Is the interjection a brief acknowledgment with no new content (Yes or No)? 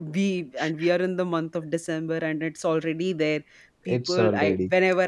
Yes